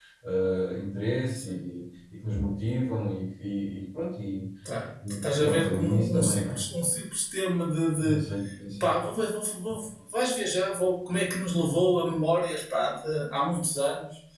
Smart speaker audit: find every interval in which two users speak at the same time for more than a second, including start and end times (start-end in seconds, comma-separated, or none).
5.3-6.6